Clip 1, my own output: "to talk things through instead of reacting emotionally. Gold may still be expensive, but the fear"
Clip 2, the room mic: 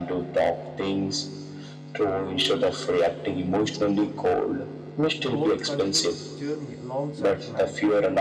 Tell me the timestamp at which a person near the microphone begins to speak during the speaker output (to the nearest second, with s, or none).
5 s